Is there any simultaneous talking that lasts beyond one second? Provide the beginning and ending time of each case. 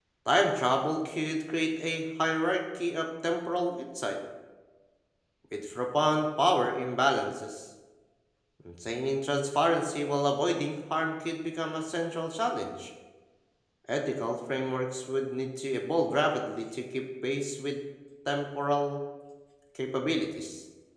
none

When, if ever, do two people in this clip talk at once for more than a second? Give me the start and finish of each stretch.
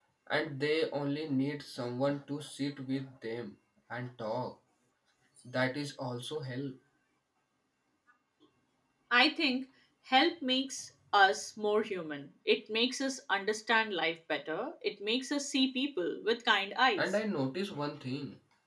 none

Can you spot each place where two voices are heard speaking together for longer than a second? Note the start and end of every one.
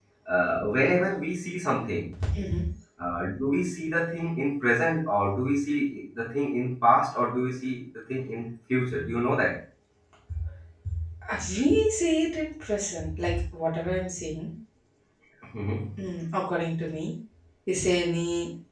none

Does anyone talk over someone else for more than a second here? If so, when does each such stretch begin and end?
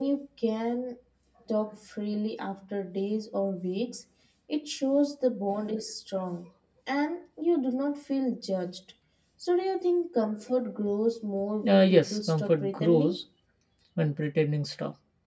11.6-13.2

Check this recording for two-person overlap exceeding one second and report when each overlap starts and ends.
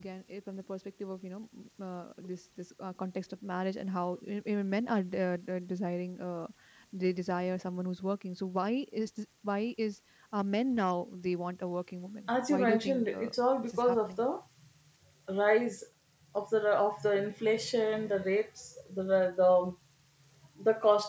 12.5-14.2

